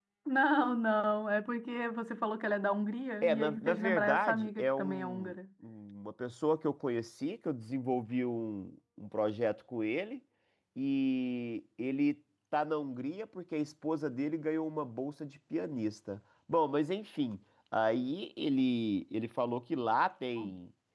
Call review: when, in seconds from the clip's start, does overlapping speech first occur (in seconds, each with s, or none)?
3.2 s